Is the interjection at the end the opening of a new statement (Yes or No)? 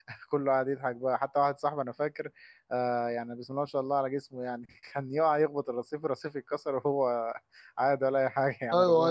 Yes